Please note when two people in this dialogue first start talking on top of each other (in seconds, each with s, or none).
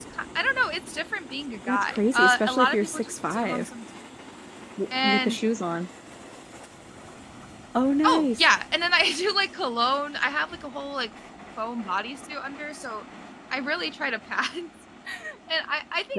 1.7 s